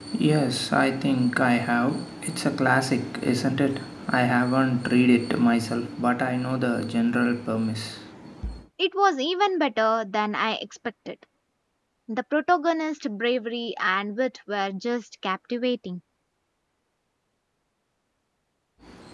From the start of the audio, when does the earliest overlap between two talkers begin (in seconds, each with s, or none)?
none